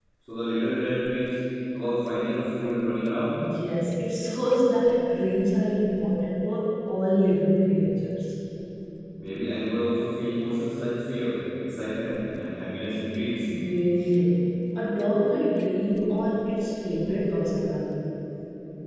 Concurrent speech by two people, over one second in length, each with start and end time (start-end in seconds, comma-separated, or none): none